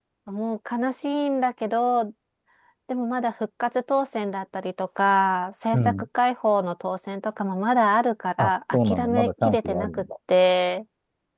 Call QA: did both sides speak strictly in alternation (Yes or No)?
No